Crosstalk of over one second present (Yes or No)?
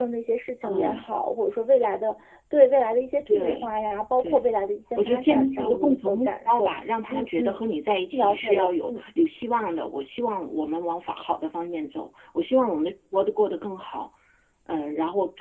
Yes